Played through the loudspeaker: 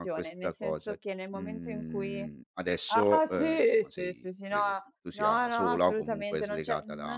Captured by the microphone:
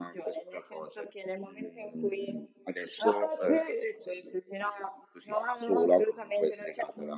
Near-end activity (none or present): none